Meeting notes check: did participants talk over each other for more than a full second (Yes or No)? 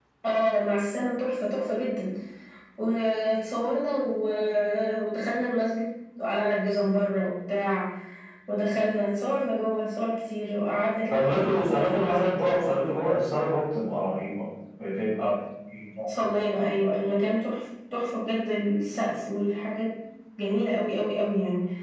Yes